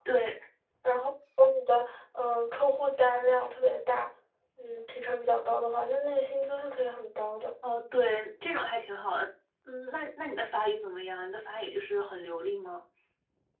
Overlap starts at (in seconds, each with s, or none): none